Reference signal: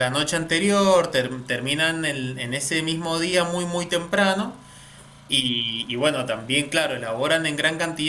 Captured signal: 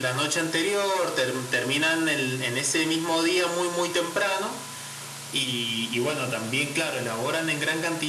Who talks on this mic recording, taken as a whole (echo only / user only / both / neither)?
echo only